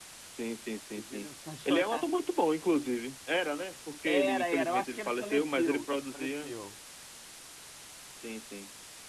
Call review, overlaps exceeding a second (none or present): present